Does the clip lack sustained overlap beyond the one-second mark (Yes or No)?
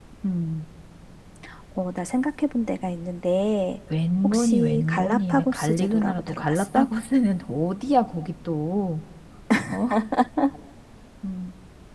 No